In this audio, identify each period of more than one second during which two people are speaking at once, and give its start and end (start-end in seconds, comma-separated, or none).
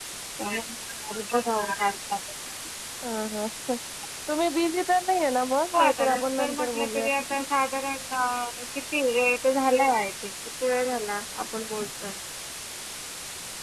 5.7-7.1